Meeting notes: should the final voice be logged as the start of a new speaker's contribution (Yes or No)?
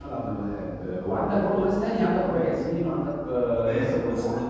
Yes